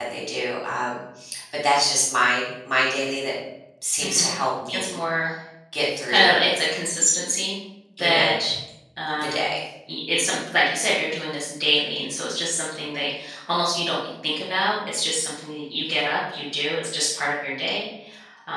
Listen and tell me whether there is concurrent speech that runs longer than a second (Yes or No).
No